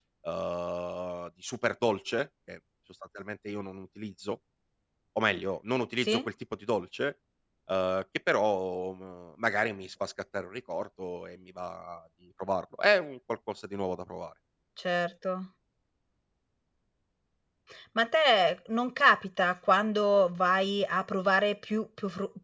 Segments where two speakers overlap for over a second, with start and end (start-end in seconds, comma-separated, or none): none